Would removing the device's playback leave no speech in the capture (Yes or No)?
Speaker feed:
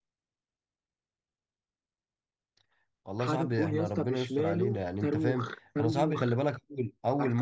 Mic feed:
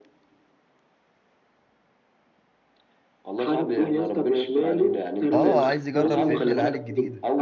No